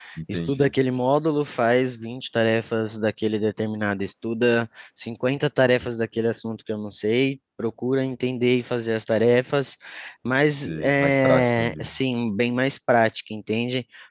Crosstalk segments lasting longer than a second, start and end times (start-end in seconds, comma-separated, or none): 10.6-11.9